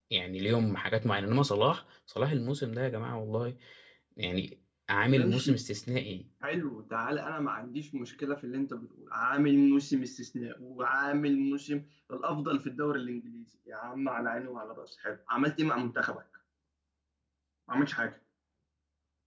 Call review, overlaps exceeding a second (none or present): none